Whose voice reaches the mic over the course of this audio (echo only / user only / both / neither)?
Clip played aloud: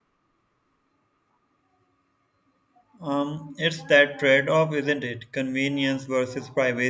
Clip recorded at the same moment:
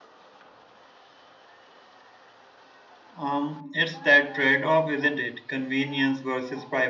echo only